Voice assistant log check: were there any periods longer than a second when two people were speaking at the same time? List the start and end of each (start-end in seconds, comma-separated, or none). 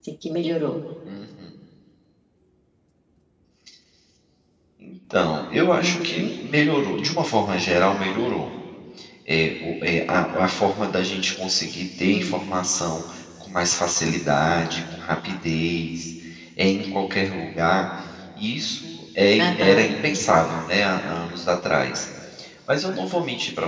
none